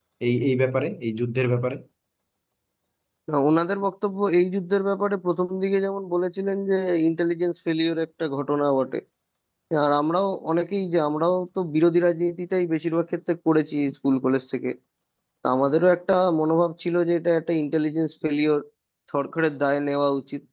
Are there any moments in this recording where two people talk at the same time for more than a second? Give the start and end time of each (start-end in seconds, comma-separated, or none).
none